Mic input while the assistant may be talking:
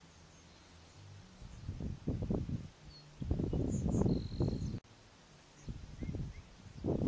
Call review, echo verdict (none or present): none